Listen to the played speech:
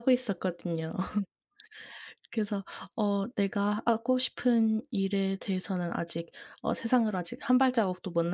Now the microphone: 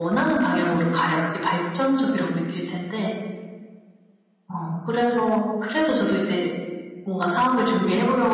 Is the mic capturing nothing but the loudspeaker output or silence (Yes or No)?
No